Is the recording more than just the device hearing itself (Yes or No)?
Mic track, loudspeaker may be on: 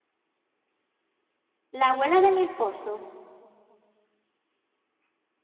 Yes